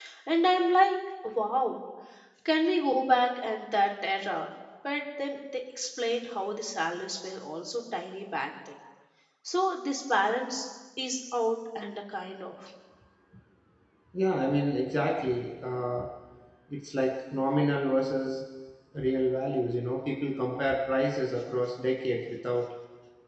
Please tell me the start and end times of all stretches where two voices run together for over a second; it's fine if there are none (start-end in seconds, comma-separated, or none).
none